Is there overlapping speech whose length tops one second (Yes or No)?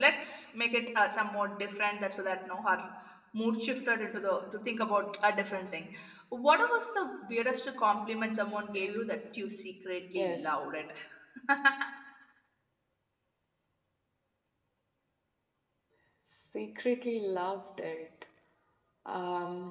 No